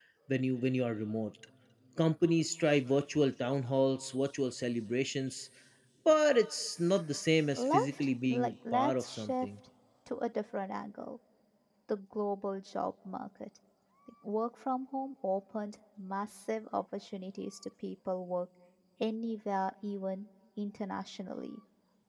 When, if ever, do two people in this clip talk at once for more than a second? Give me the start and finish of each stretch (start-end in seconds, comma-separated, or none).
7.5-9.5